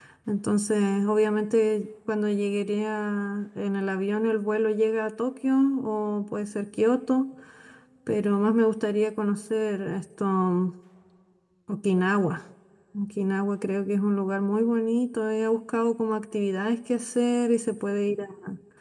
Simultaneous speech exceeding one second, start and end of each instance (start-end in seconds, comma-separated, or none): none